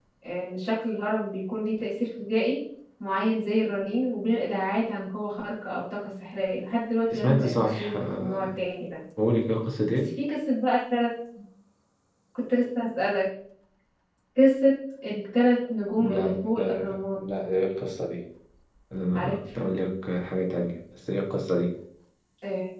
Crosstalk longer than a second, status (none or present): present